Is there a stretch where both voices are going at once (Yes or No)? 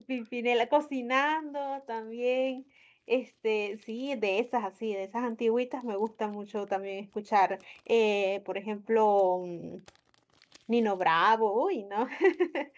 No